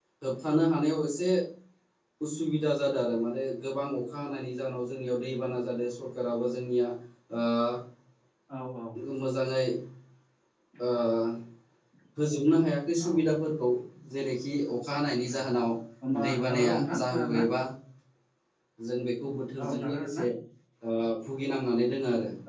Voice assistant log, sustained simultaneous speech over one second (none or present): present